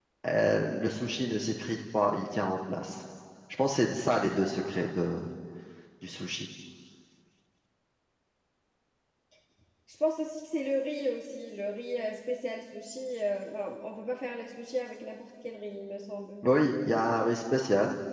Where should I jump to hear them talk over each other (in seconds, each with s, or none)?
none